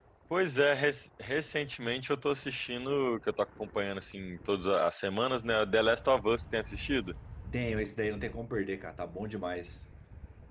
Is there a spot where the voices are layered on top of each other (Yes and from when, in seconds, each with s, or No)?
No